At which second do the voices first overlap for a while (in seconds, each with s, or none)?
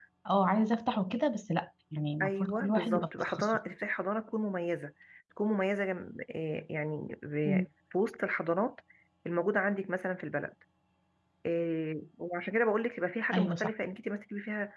2.2 s